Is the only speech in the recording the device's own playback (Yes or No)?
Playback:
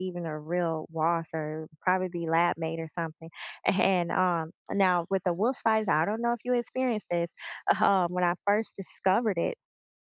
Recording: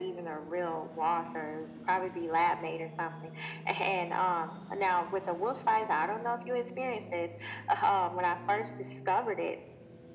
Yes